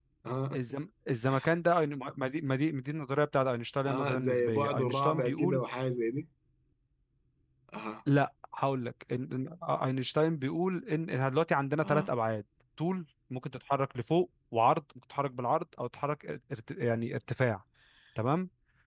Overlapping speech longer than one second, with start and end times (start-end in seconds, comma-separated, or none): 3.9-5.6